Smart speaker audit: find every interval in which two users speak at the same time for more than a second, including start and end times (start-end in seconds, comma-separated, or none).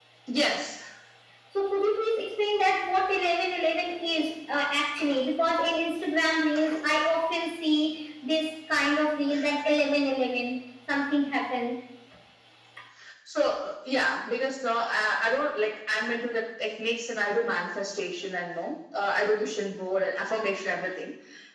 none